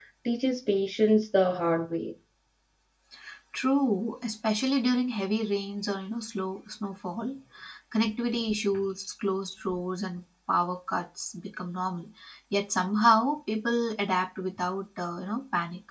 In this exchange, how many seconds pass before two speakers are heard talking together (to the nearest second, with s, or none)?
none